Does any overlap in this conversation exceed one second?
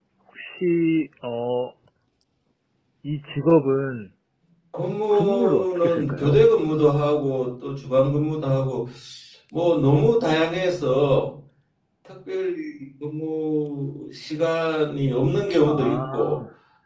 Yes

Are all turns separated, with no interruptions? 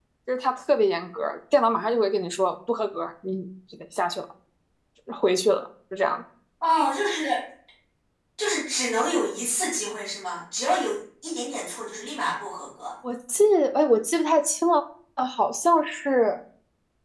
Yes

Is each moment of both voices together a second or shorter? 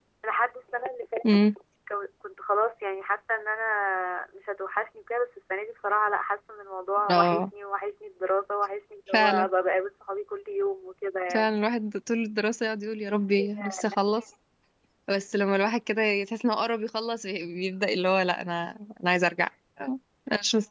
Yes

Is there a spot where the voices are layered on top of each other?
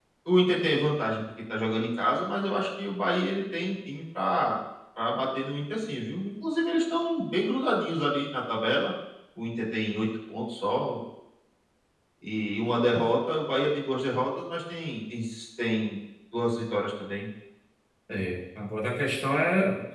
No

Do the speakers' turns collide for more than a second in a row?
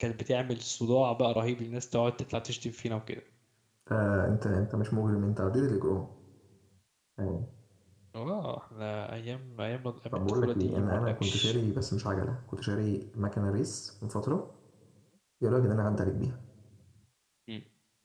Yes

